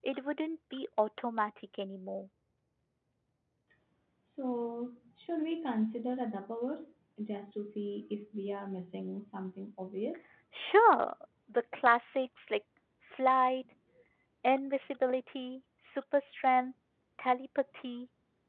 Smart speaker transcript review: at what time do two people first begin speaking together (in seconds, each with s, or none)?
none